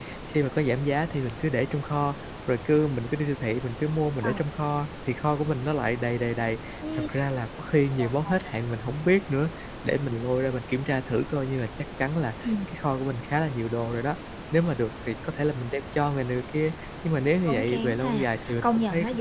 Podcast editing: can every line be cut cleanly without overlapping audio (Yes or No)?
No